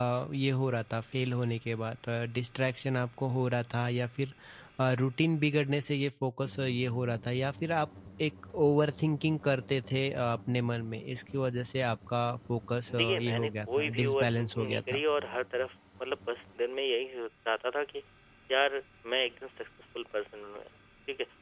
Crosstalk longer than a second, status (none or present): present